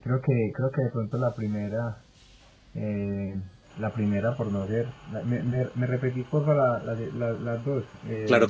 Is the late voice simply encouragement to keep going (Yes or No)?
No